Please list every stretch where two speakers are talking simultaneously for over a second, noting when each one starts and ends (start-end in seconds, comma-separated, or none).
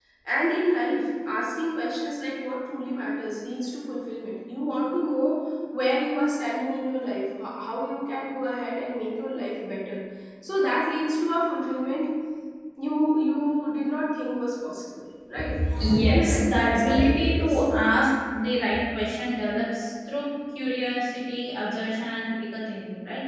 16.0-17.6